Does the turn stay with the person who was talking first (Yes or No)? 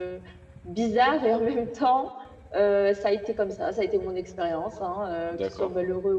Yes